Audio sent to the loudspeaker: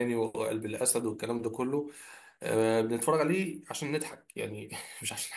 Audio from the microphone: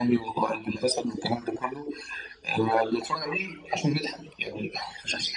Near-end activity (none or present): none